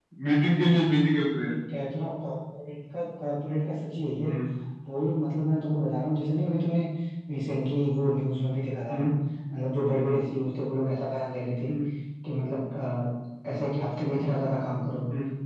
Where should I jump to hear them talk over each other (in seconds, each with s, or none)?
none